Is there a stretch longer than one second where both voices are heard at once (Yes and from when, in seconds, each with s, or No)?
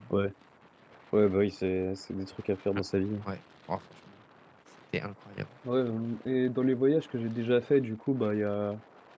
No